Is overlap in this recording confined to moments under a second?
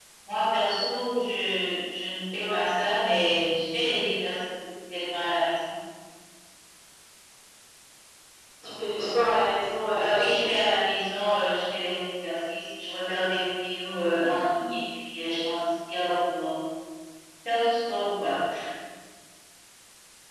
Yes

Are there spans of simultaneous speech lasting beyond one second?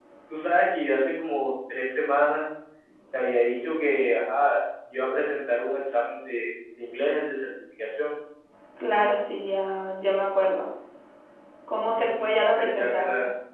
Yes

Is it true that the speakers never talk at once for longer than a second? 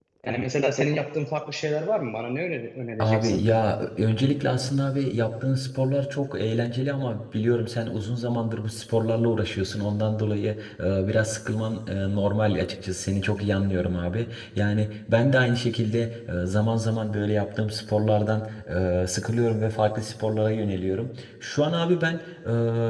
Yes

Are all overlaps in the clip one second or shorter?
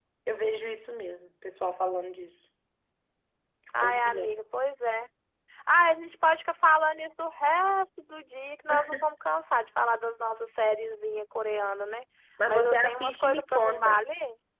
No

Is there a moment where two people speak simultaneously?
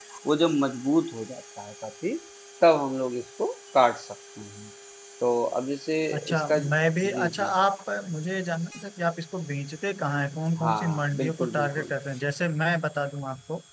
Yes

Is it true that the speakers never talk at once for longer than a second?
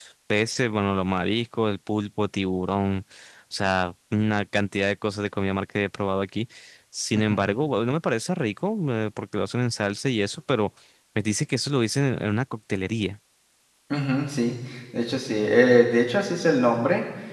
Yes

